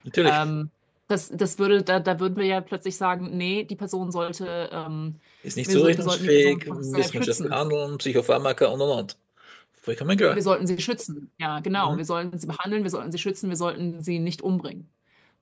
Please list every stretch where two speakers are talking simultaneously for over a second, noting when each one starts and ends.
5.7-7.5

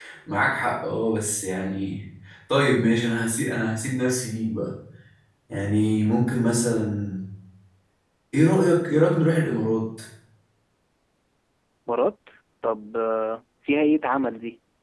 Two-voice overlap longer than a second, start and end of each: none

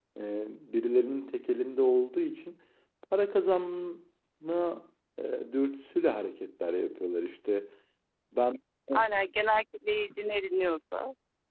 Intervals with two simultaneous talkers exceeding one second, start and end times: none

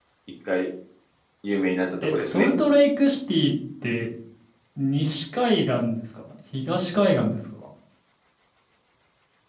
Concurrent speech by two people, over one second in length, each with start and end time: none

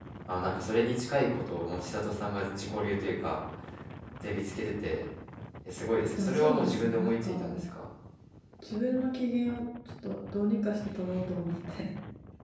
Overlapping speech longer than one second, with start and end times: 6.2-7.6

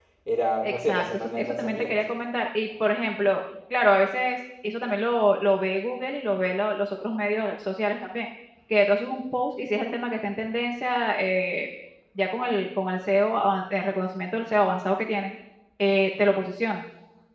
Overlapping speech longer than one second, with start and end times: 0.6-1.9

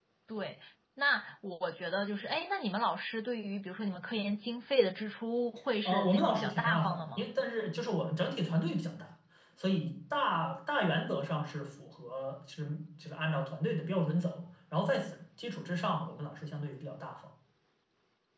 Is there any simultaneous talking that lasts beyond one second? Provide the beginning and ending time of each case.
5.8-7.2

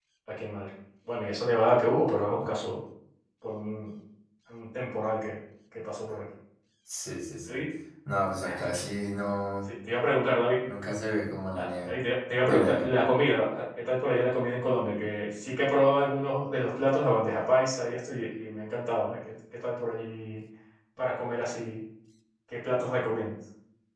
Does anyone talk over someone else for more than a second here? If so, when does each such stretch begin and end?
none

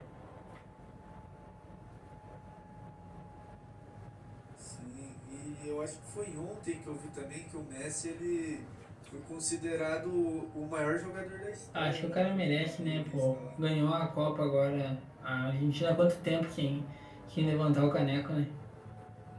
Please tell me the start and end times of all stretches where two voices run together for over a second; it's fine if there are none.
11.7-13.4

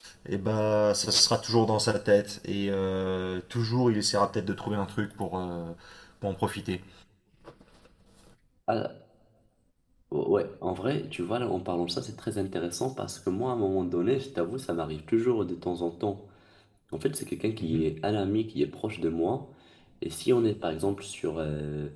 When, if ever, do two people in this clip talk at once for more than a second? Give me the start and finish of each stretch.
none

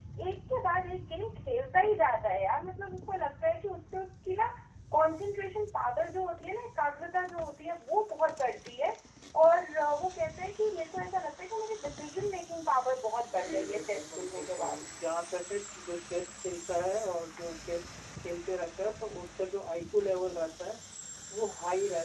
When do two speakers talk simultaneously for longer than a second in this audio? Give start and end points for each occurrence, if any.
13.2-14.8

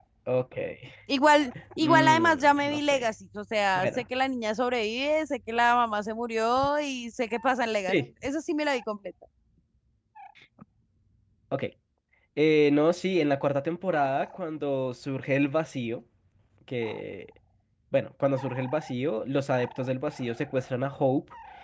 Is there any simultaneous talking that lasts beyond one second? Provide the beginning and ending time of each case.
1.8-3.0

